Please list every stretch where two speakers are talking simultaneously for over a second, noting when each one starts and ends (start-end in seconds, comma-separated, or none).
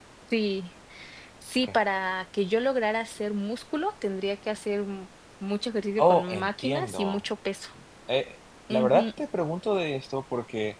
6.0-7.2